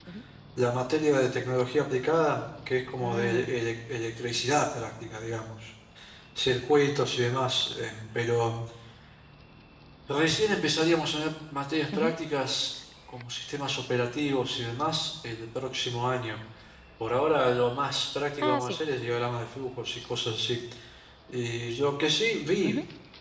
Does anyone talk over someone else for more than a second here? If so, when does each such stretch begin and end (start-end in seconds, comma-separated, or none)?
none